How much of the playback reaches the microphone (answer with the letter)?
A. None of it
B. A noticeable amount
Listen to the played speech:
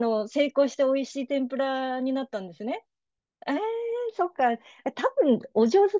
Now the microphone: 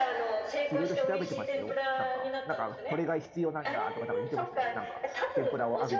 B